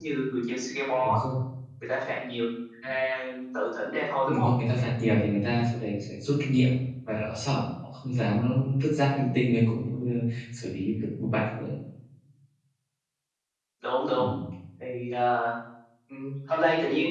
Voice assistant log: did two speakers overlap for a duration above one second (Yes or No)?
No